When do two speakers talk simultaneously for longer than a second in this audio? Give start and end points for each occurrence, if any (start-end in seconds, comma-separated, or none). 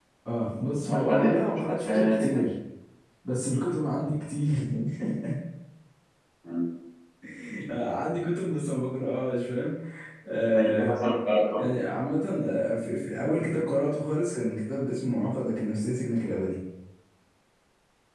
0.9-2.4